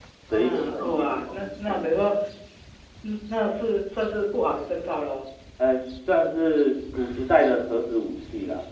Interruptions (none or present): present